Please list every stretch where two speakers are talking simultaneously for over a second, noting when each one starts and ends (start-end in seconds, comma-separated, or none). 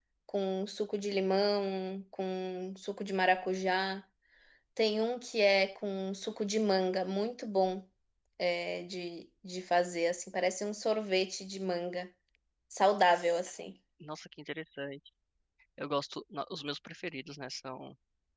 none